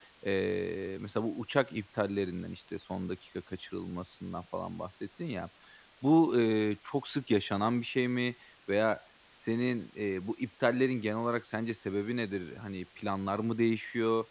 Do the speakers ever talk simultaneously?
No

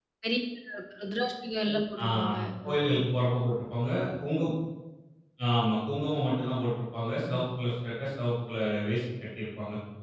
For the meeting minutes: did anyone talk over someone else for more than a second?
No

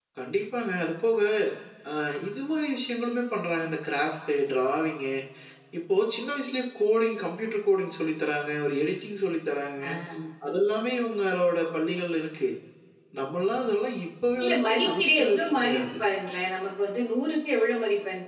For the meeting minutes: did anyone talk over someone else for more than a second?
Yes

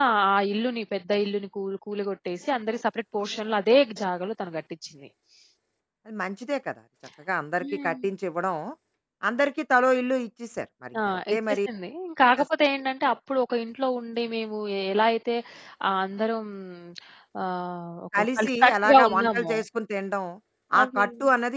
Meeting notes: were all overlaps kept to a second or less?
No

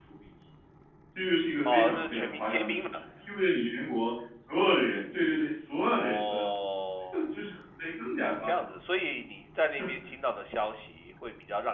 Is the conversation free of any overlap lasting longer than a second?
No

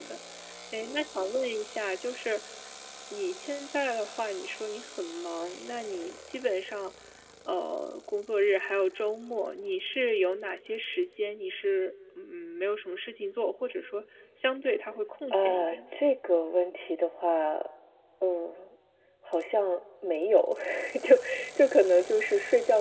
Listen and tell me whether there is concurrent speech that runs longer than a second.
No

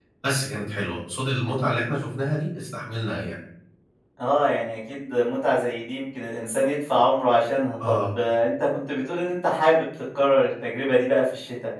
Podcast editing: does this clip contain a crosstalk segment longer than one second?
No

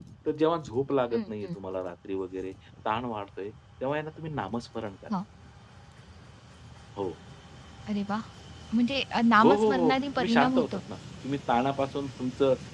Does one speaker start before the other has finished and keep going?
Yes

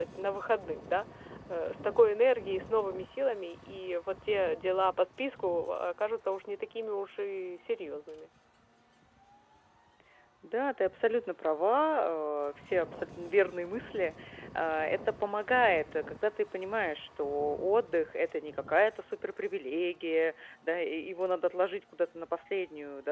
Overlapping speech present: No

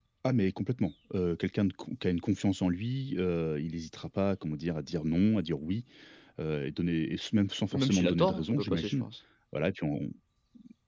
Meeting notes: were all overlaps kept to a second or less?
No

